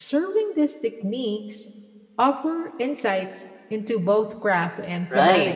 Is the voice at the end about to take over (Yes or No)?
Yes